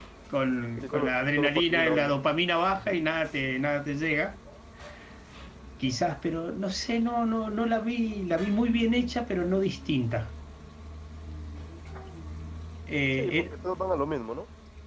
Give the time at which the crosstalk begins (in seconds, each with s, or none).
0.8 s